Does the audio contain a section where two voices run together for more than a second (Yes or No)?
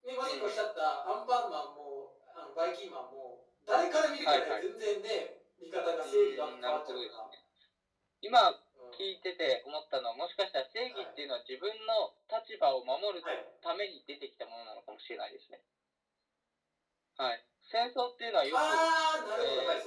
Yes